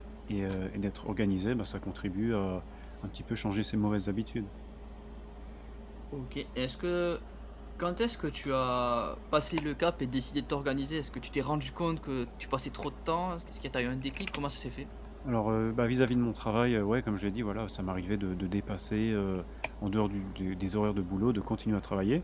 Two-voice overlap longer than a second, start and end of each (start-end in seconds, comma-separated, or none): none